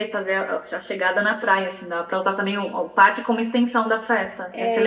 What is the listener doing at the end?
taking over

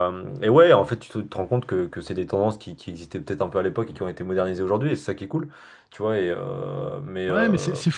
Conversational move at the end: taking over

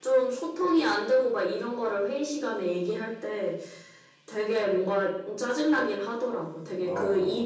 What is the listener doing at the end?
listening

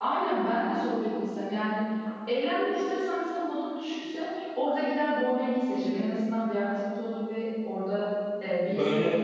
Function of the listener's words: listening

